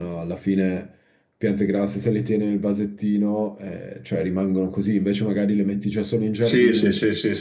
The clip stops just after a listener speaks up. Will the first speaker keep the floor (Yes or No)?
No